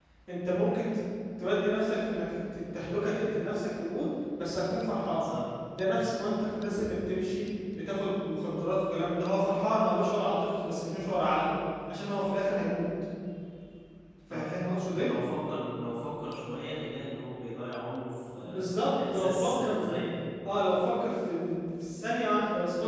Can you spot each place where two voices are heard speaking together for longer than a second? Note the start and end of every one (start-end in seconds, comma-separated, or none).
18.4-19.8